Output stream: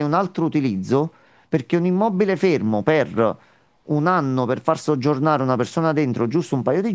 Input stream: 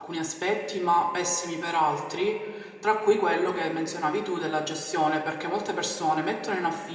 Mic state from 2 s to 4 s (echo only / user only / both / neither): user only